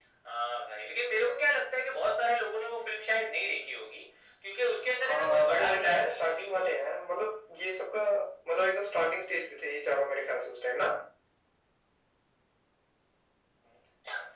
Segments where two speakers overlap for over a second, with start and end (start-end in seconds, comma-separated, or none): 5.0-6.9